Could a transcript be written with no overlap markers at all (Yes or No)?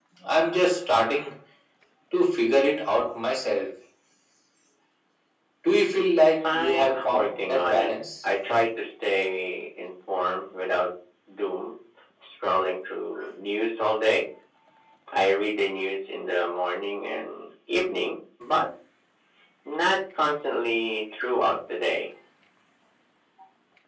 No